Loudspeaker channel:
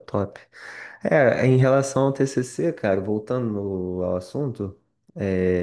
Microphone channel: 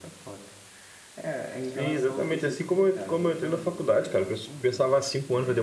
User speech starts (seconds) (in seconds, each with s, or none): 1.6 s